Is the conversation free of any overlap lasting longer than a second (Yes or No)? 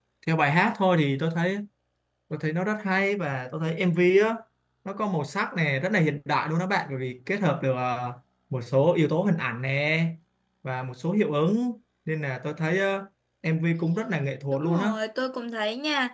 Yes